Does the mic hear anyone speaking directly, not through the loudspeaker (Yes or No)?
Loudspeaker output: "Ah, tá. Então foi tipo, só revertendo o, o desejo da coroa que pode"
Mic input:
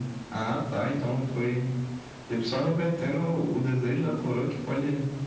No